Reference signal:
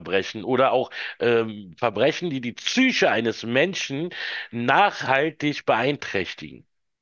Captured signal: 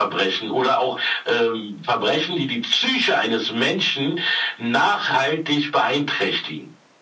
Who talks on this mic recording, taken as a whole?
echo only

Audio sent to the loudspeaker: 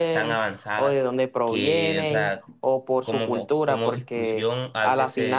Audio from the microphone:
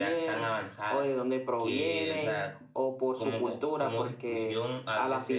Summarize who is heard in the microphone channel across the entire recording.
echo only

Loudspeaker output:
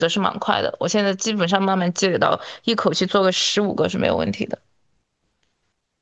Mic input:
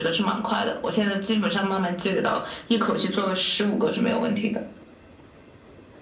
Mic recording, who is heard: both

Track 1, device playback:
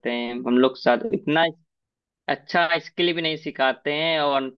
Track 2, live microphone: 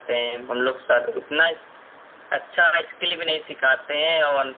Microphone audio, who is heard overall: echo only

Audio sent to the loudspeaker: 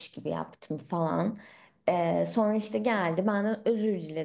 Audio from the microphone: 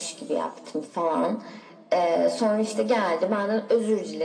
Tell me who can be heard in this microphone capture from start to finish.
echo only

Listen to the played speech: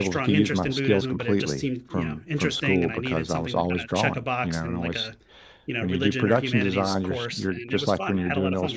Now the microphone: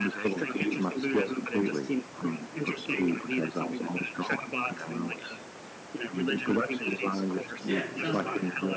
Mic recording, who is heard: both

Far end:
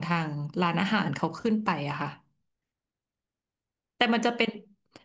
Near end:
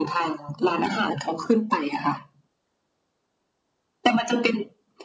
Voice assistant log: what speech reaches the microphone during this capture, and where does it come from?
echo only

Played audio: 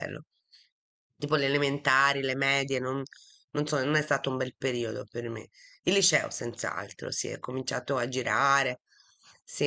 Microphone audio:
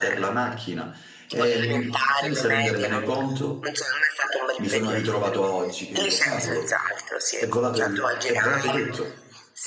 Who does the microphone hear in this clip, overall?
both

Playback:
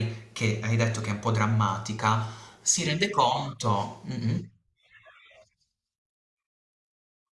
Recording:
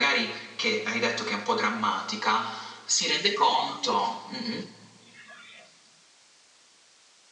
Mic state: both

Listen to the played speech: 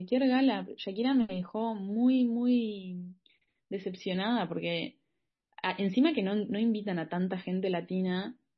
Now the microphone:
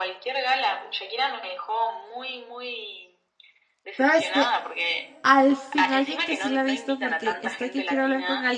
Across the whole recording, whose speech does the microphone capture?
both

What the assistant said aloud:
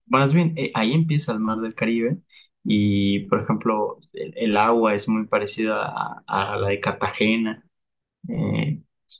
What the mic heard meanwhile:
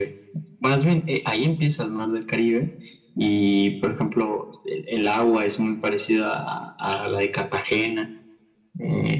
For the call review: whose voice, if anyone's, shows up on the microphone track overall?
echo only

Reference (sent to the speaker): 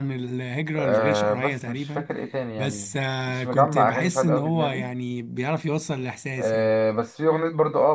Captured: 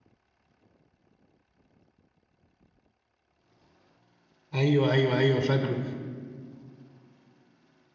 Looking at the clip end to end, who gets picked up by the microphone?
user only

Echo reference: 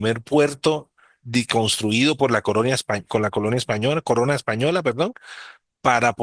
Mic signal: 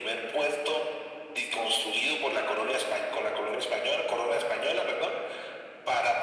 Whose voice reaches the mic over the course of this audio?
echo only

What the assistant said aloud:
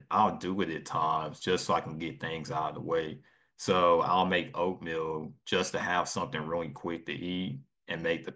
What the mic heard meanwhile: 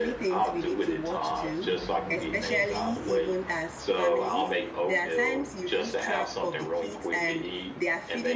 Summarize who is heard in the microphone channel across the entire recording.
both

